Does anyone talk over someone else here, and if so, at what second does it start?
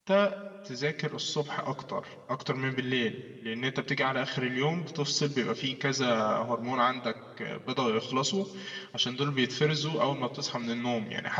none

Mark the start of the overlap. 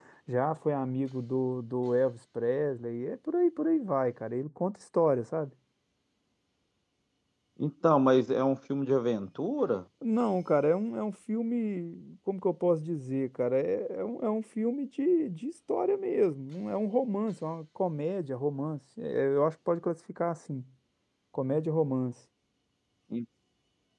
none

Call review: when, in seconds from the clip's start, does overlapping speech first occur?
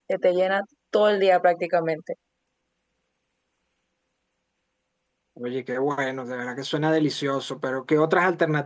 none

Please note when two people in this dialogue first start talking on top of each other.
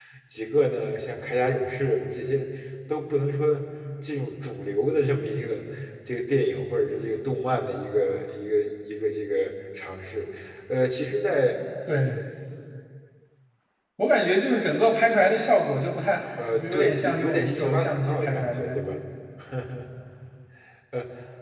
16.4 s

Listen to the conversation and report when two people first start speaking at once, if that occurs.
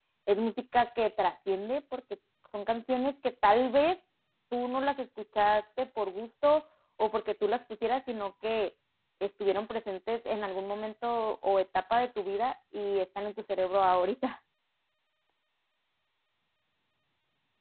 none

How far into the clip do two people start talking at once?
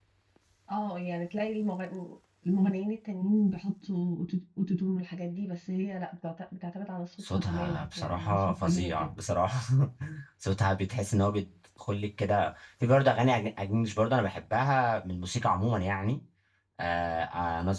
7.2 s

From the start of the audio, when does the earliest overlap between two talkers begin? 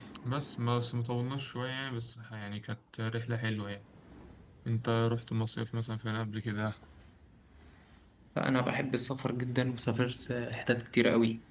none

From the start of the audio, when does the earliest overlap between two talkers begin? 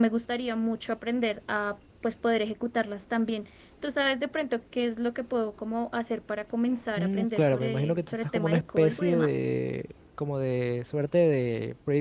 7.0 s

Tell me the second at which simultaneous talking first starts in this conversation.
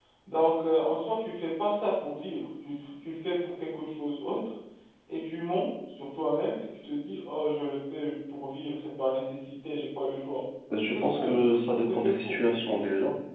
10.9 s

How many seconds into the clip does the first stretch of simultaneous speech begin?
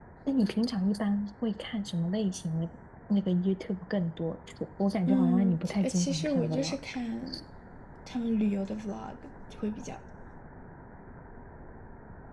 5.1 s

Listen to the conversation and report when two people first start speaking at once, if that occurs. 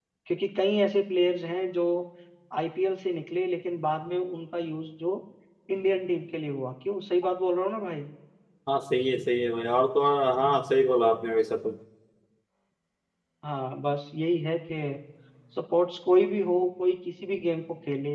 none

